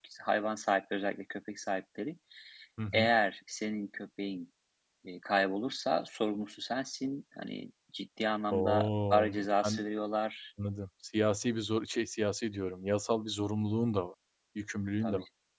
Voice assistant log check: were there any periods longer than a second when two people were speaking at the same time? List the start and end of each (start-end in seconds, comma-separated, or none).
8.5-9.8